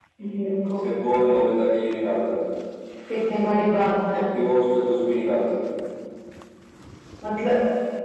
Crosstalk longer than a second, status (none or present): none